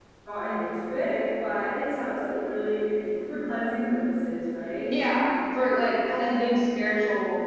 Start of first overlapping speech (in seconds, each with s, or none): none